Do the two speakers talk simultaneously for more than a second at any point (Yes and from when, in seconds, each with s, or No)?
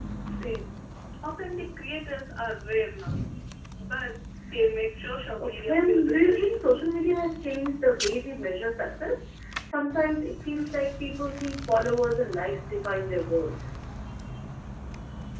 Yes, from 5.4 s